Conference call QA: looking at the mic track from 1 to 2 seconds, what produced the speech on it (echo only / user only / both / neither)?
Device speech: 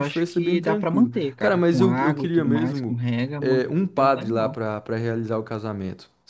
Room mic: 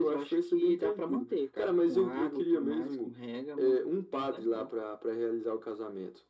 echo only